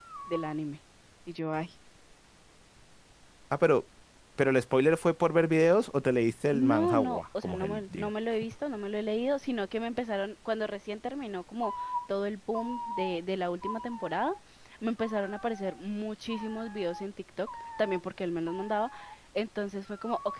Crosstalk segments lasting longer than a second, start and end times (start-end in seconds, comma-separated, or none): 6.5-8.1